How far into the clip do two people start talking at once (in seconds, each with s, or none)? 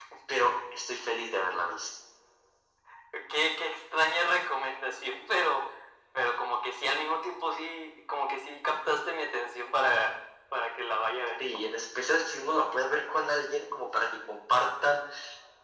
none